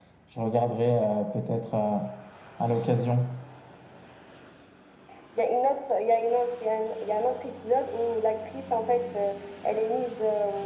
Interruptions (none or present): none